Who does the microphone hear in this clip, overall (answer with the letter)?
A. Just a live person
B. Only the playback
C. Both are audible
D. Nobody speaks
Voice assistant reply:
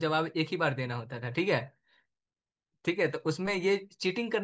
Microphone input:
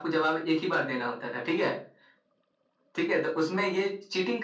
B